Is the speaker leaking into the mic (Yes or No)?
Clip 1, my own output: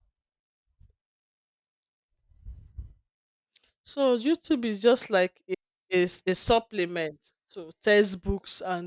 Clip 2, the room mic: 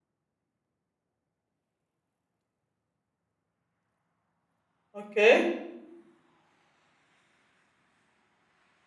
No